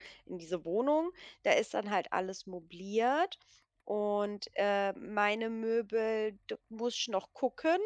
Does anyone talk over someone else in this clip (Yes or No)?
No